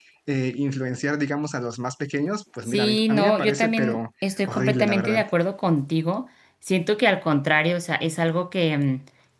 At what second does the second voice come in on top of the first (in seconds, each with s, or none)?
2.7 s